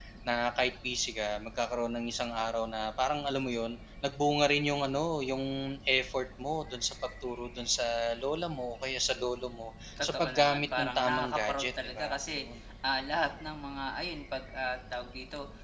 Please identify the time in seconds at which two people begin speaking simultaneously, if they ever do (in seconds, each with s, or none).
10.0 s